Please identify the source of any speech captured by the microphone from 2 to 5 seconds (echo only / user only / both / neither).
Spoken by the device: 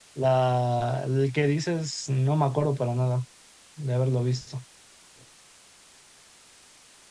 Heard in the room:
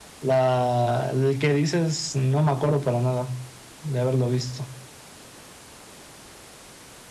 echo only